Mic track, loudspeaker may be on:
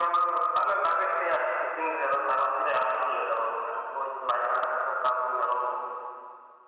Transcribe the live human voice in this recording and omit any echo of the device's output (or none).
none